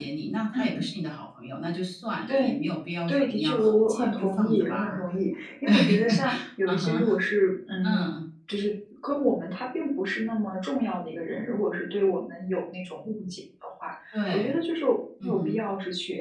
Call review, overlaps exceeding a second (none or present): present